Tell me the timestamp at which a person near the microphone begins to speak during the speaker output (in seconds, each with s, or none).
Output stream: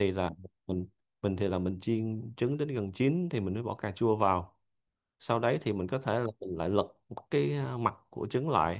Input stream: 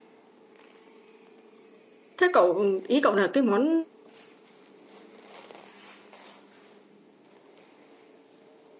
2.2 s